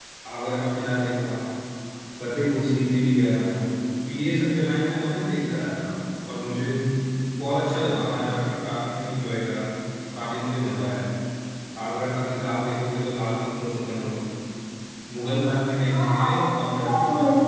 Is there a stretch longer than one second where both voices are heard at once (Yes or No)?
Yes